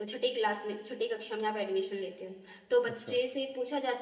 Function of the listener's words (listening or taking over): listening